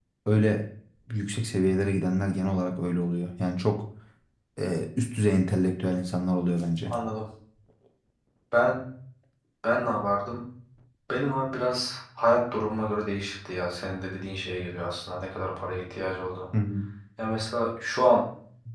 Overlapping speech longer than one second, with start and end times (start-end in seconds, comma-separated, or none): none